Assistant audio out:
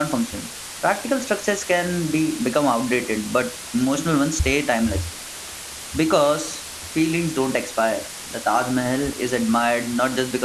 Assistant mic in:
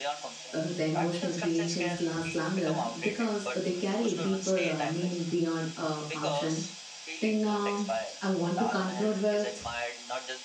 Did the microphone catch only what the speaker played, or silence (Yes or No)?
No